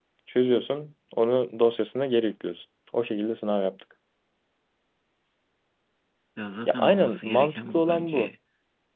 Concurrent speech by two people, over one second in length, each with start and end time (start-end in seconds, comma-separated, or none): 6.7-8.3